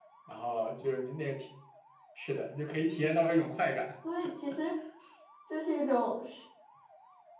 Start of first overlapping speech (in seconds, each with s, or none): none